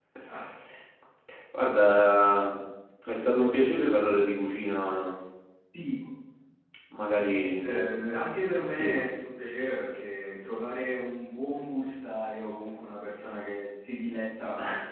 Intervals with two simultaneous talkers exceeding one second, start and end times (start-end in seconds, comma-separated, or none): none